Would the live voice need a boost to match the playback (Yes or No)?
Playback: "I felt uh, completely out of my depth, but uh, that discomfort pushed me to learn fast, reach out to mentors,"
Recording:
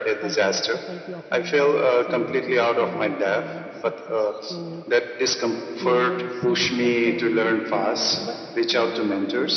Yes